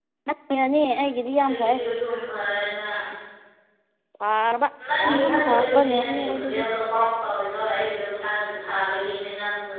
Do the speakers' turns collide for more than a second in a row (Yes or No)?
Yes